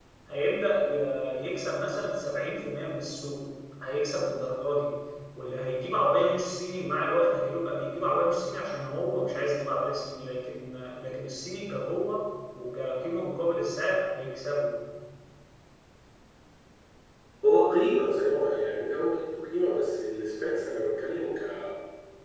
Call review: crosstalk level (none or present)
none